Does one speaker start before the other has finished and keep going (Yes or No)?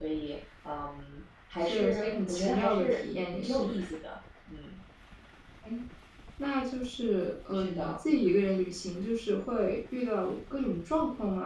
Yes